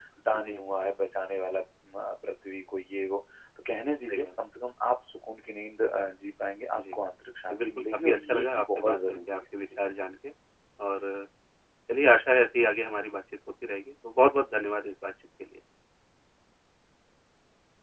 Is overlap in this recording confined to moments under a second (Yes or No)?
No